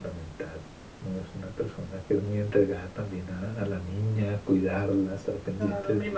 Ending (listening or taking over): taking over